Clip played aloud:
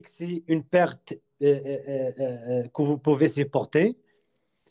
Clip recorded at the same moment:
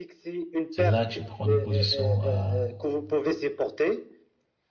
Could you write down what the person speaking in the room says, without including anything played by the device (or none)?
C'est là que je prends des positions à